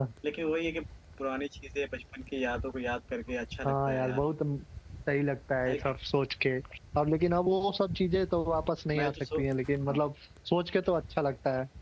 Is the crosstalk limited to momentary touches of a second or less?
Yes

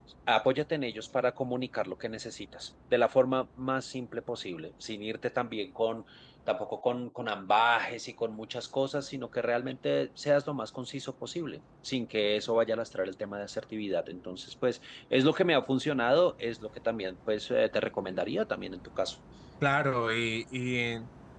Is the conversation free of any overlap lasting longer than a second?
Yes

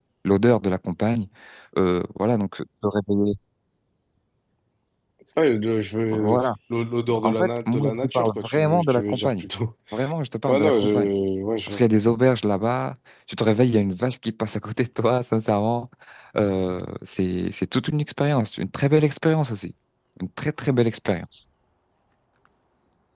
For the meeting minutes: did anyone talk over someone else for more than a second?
Yes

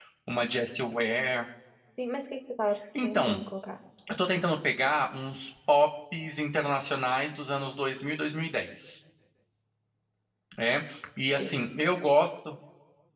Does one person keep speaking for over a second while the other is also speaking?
No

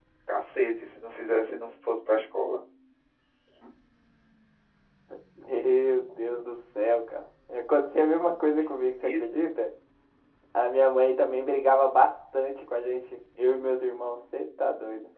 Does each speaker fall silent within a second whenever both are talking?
Yes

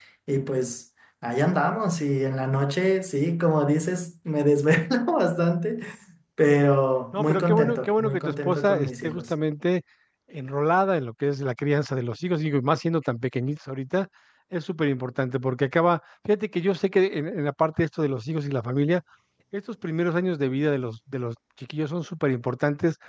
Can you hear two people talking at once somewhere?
Yes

